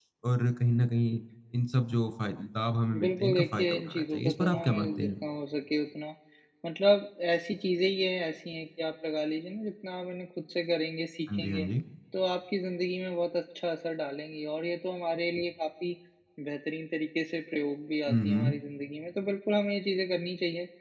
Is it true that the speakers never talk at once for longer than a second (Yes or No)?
No